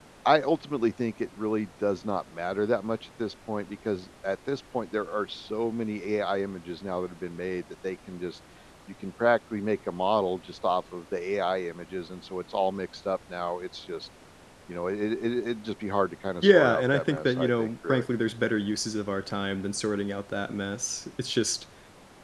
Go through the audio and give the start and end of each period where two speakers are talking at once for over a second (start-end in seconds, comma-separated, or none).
16.4-18.1